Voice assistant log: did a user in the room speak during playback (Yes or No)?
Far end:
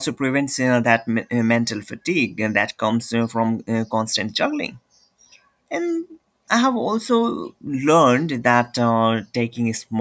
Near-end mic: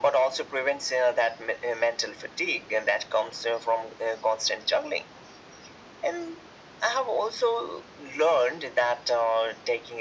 No